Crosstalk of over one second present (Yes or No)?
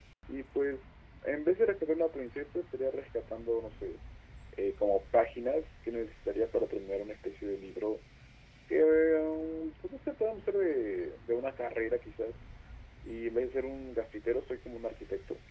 No